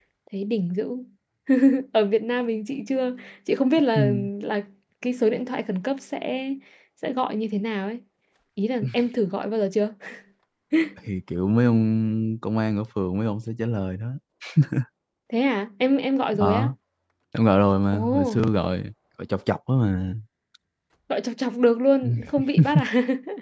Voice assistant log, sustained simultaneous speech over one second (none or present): none